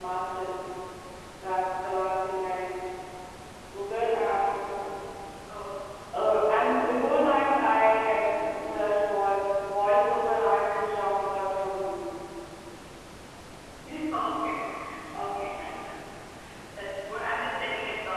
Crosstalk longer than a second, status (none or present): none